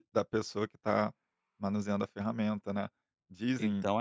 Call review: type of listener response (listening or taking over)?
taking over